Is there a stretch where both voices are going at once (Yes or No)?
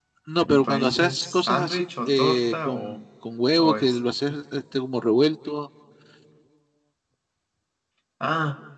Yes